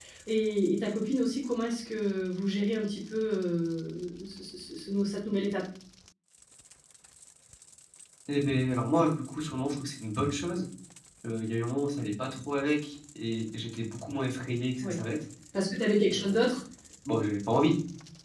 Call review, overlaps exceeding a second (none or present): none